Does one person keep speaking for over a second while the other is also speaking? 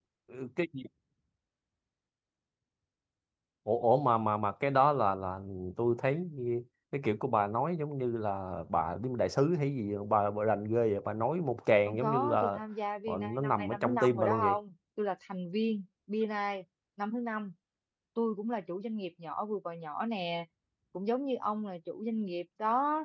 Yes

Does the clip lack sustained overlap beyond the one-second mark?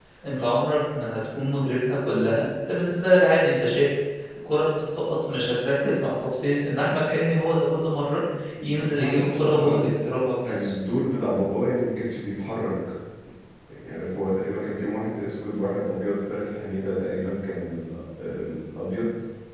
No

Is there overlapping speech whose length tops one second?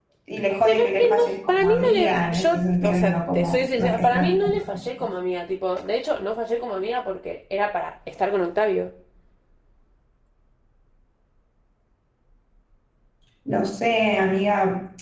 Yes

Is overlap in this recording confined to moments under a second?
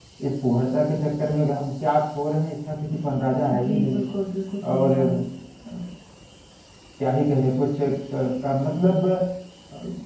Yes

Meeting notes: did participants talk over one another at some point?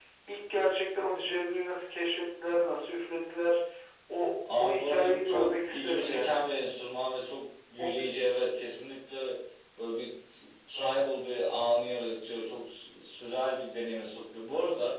Yes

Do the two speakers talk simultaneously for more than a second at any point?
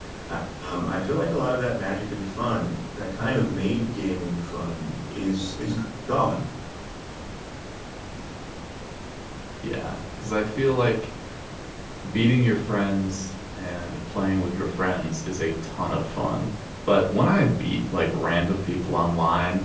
No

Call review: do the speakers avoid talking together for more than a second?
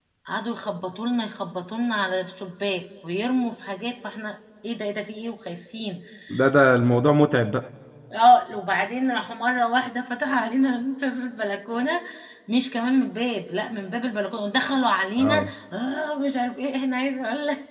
Yes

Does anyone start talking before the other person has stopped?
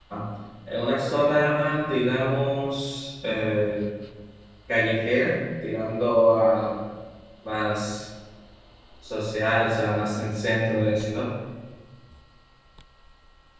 No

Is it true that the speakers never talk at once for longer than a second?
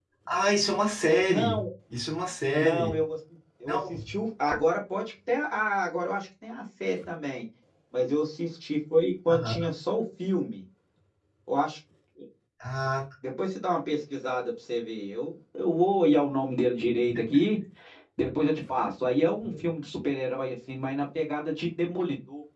Yes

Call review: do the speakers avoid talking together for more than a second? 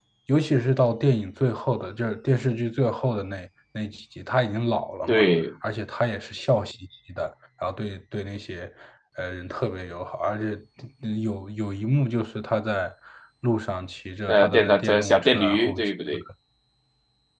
No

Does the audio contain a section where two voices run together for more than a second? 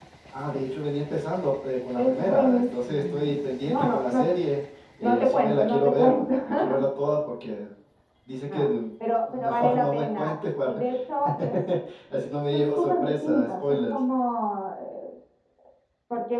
Yes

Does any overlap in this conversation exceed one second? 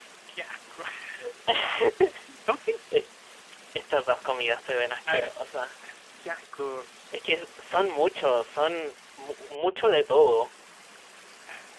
No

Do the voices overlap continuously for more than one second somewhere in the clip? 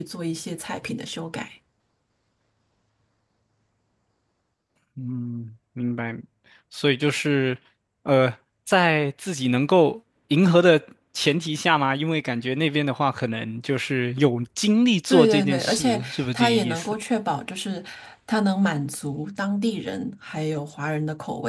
Yes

